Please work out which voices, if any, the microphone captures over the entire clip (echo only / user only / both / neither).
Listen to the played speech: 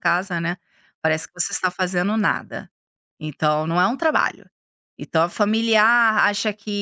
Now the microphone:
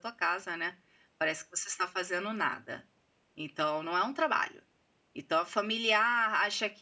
echo only